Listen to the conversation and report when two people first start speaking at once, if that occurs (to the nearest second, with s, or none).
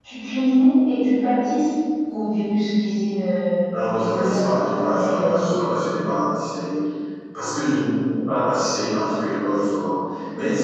4 s